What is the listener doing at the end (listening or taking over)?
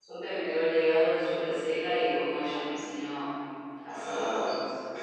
taking over